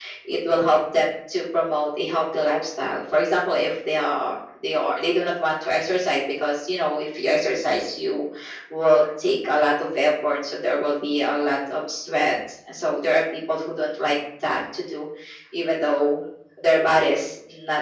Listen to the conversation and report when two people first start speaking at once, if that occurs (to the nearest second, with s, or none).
none